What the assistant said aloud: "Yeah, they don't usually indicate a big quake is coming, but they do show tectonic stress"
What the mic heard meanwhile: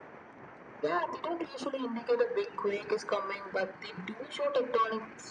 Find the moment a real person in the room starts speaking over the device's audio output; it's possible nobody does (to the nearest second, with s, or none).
none